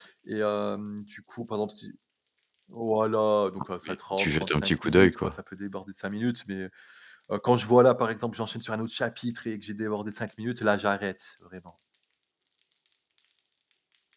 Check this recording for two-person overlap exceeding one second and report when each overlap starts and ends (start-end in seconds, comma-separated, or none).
3.9-5.3